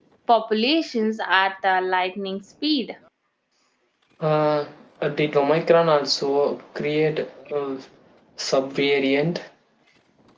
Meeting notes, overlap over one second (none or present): none